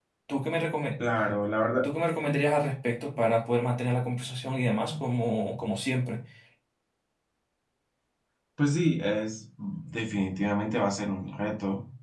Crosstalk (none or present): none